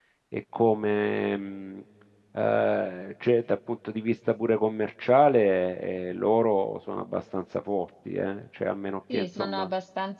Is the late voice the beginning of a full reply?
Yes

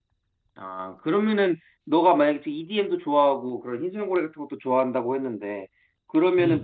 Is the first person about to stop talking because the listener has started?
No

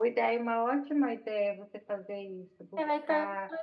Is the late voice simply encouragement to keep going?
No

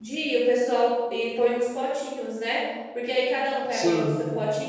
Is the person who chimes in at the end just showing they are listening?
Yes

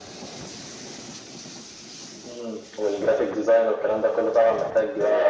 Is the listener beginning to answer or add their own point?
Yes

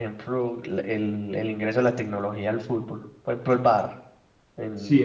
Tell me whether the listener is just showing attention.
No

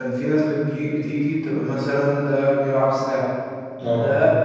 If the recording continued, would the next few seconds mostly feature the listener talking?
No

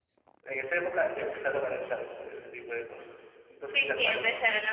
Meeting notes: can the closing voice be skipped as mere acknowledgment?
No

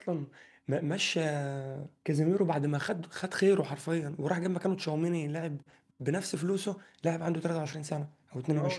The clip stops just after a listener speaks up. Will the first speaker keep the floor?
No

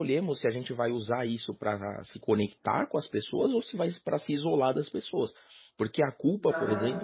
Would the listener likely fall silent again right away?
Yes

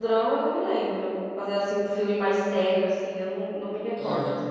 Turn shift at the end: Yes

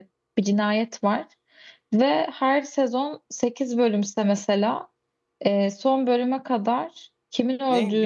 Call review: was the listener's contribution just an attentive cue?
No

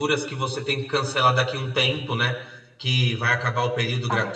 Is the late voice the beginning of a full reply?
No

